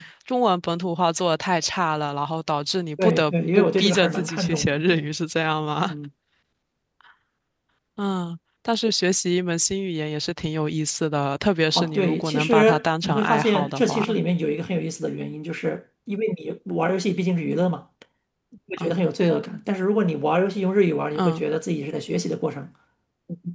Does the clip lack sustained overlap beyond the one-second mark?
No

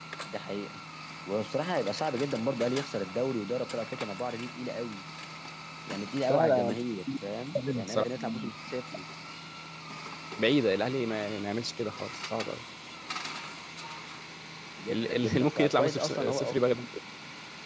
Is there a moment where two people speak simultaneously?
Yes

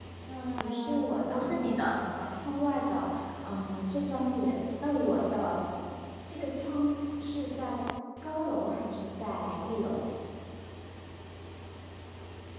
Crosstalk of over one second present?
Yes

